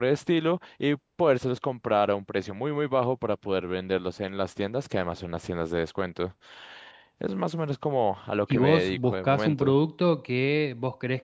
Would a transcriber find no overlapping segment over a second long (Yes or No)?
No